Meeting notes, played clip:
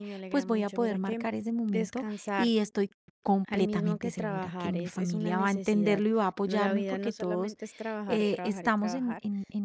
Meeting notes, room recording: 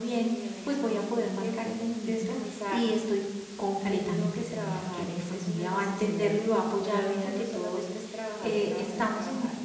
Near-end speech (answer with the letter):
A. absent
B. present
A